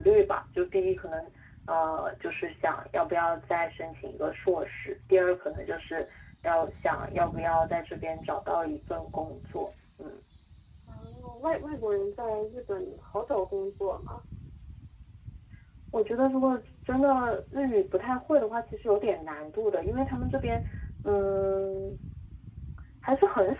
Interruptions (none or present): none